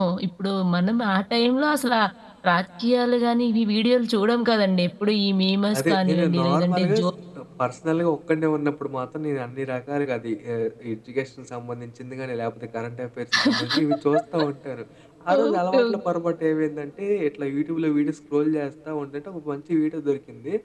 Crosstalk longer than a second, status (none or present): present